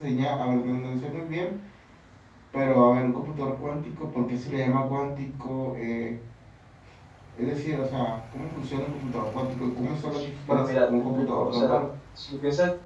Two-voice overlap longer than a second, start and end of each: 10.5-11.8

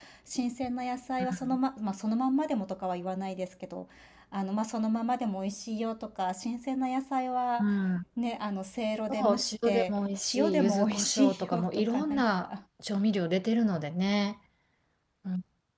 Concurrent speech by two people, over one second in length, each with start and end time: 9.1-12.5

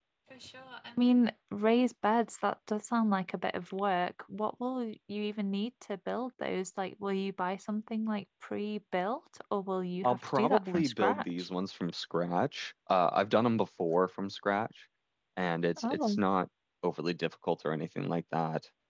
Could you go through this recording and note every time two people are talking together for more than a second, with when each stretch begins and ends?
10.0-11.5

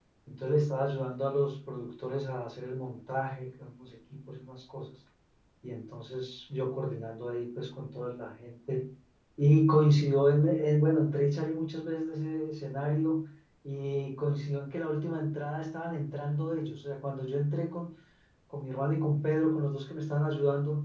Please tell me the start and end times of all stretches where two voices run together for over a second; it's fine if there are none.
none

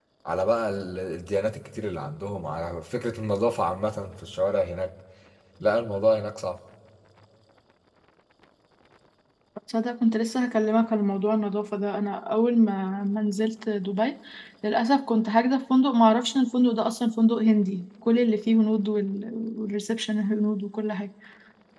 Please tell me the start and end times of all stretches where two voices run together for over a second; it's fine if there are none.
none

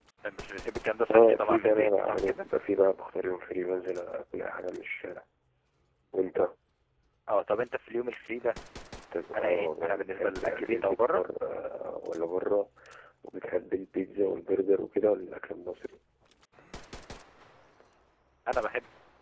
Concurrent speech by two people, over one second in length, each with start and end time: 1.1-2.5, 9.3-11.2

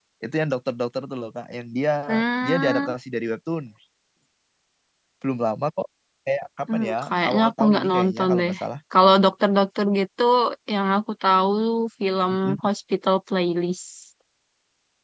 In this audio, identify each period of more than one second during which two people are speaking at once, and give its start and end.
6.7-8.5

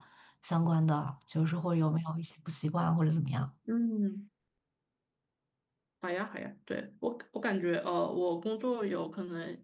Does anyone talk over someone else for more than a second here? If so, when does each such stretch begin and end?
none

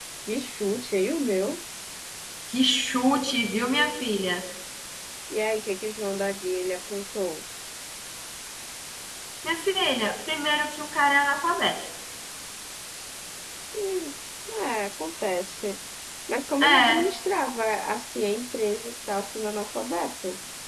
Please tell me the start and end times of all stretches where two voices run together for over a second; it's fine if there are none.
none

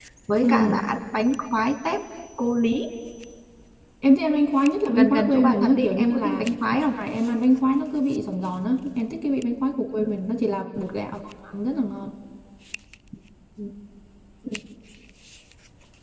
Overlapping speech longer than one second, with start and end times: 4.9-6.9

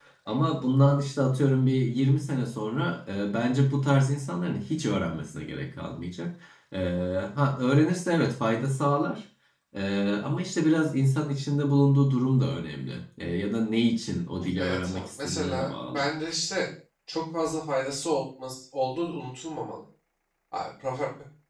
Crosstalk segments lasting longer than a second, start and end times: 14.6-16.1

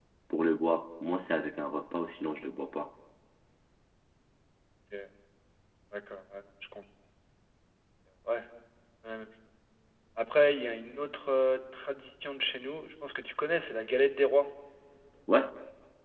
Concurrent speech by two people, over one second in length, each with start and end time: none

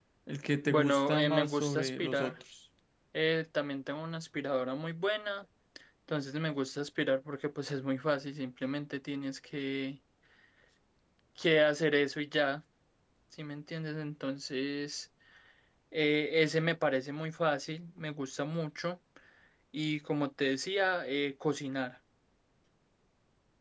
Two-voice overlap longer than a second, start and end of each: 0.7-2.3

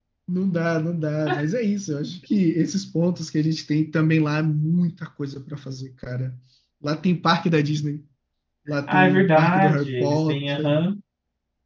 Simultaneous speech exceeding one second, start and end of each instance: 8.9-10.8

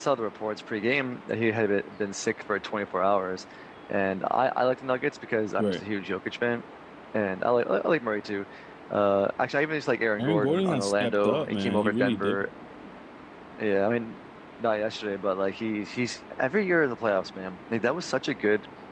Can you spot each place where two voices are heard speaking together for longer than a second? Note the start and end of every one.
10.2-12.5

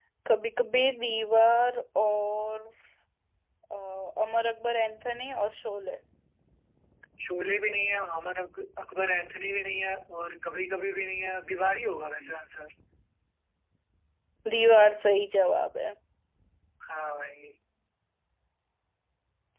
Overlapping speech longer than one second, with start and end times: none

